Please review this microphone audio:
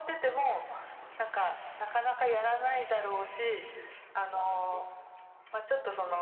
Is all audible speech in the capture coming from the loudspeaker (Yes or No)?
Yes